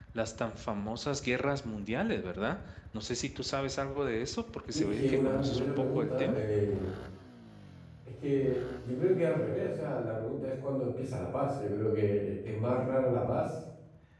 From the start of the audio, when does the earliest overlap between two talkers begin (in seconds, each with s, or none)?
4.7 s